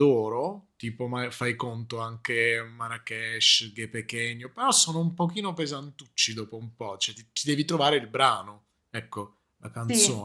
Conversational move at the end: taking over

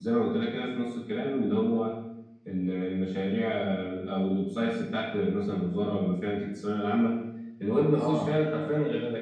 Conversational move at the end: listening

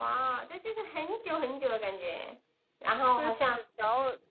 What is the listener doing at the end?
taking over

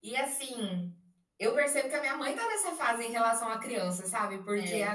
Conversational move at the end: listening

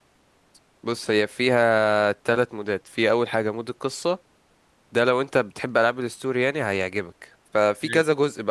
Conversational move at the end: listening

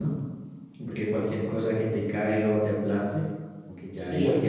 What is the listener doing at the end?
taking over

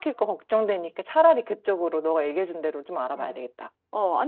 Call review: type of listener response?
taking over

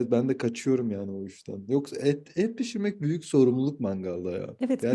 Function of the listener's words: taking over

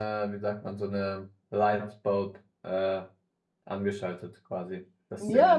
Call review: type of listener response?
taking over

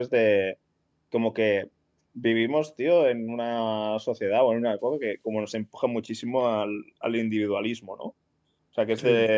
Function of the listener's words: taking over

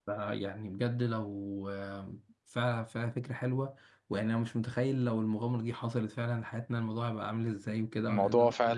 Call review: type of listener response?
listening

